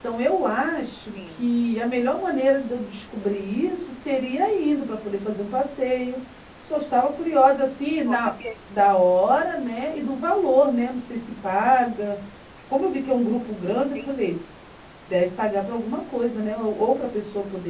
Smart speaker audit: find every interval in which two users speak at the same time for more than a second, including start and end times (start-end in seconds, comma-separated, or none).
none